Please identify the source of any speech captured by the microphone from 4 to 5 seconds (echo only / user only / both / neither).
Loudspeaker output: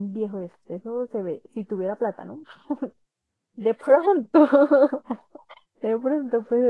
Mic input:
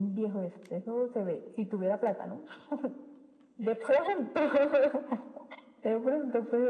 echo only